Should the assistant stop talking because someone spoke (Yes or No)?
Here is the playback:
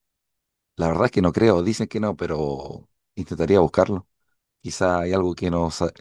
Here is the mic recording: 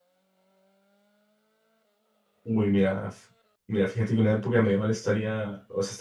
Yes